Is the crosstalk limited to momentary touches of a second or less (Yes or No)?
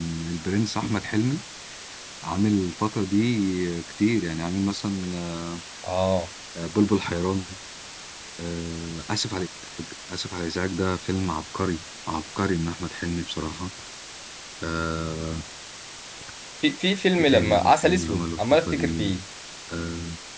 No